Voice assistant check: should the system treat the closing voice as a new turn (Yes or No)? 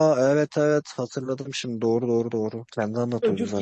Yes